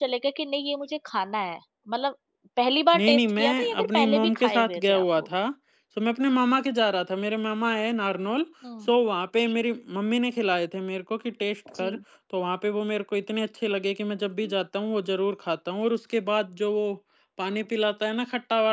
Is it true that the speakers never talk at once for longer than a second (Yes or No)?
No